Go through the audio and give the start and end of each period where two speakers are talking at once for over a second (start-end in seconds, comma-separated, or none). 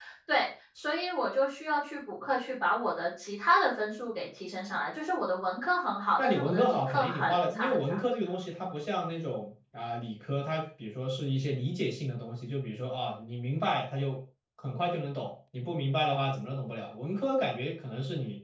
6.2-8.0